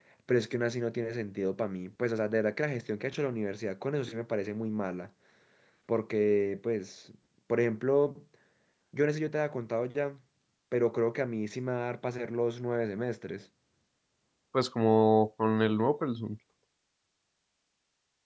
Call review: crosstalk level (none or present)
none